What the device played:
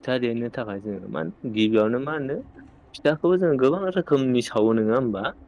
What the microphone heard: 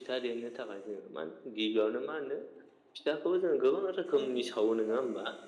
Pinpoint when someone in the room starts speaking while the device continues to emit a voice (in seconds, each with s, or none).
4.2 s